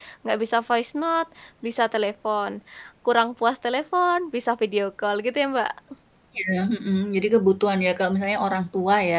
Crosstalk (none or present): none